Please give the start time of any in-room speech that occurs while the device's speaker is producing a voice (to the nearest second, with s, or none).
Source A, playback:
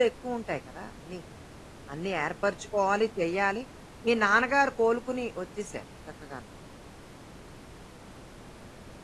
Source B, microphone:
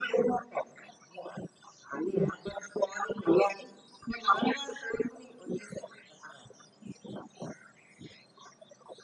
none